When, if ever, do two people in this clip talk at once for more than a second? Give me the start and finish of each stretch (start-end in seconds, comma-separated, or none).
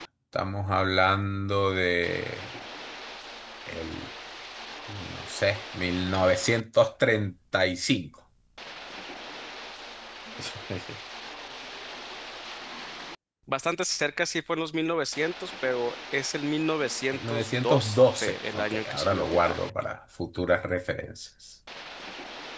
17.1-19.6